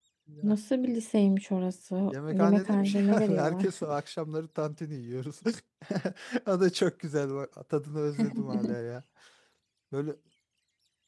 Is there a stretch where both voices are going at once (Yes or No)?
Yes